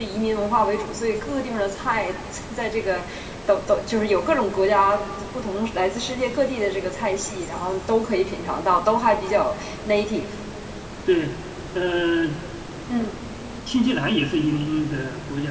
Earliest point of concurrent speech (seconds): none

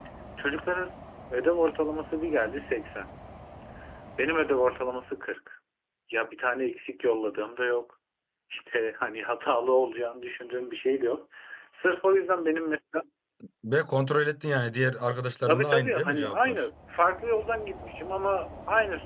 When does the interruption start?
15 s

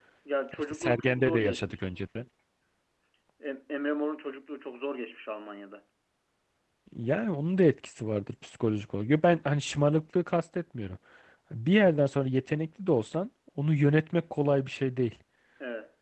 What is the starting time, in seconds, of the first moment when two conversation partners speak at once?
1 s

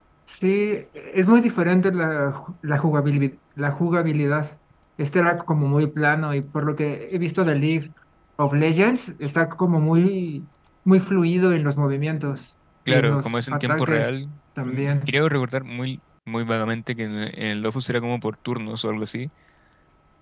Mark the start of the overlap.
13 s

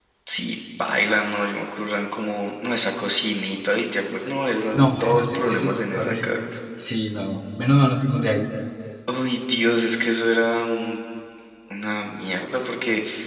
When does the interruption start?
5 s

